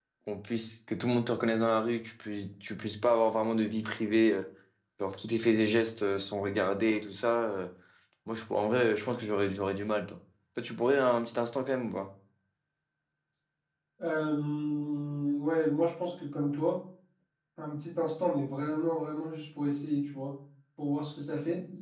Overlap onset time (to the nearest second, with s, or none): none